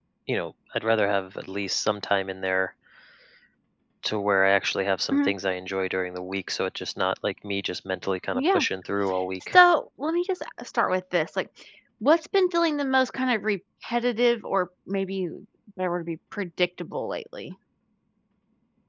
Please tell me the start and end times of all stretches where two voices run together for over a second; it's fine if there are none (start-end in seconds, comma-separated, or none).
none